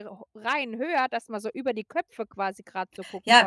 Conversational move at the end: taking over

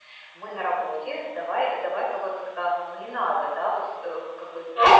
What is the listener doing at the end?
listening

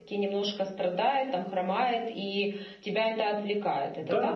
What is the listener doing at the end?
taking over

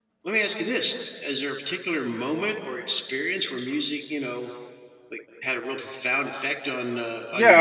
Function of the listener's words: taking over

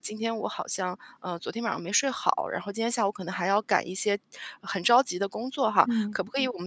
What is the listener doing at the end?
listening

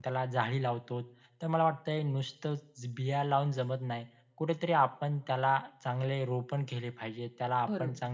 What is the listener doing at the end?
listening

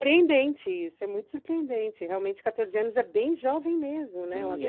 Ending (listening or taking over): taking over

